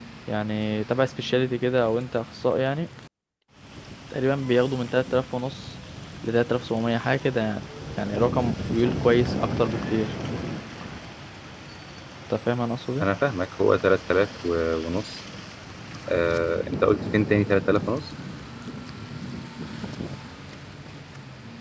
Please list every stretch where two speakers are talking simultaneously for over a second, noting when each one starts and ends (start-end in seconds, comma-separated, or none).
none